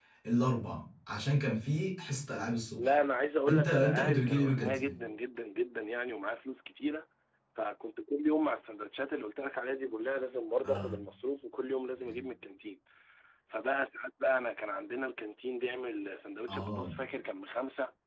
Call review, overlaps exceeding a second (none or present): present